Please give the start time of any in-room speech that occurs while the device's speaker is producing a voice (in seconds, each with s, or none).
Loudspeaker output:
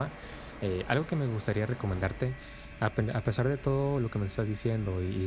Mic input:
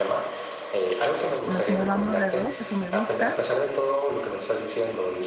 1.4 s